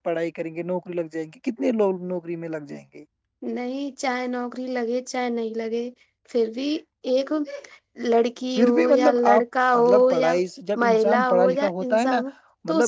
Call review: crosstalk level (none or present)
present